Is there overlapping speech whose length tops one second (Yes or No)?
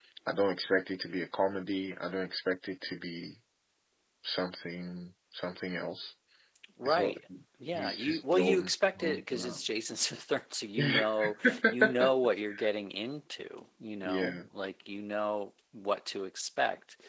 Yes